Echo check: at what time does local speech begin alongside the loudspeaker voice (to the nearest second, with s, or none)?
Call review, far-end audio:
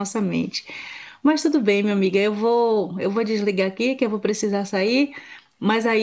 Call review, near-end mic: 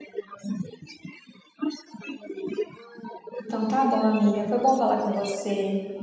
3 s